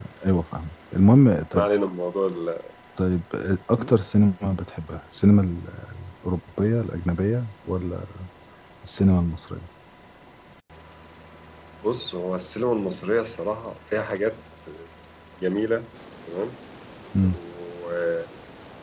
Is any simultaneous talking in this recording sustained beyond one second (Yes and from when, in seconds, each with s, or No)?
No